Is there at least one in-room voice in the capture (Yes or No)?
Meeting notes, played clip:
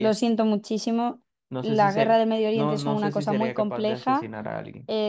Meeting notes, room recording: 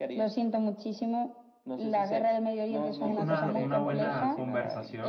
Yes